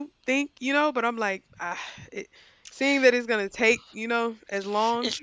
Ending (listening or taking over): taking over